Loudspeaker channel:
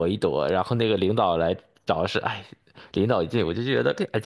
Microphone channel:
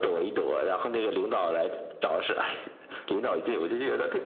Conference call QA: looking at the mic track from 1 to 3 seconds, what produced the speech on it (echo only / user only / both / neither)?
echo only